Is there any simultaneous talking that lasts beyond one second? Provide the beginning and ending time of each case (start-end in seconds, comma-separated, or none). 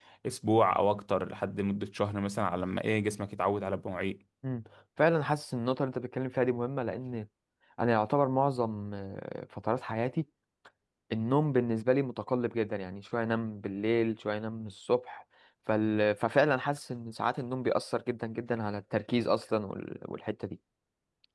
none